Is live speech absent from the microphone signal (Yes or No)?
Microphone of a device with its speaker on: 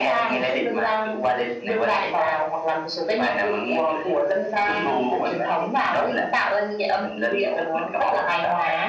Yes